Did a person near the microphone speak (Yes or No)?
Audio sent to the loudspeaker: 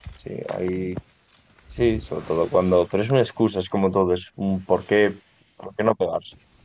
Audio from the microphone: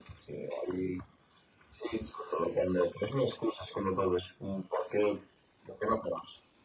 No